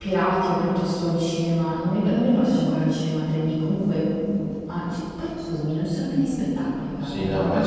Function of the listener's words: taking over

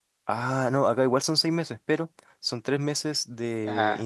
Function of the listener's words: listening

